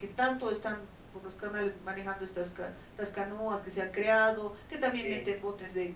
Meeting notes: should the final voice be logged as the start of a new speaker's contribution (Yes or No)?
No